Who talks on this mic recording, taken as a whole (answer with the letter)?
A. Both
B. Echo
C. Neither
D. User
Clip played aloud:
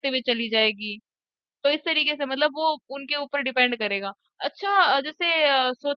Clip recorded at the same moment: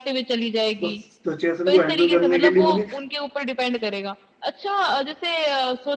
A